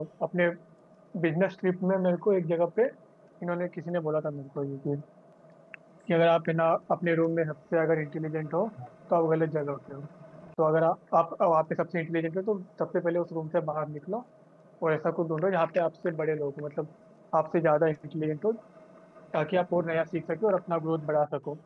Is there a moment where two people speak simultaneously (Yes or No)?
No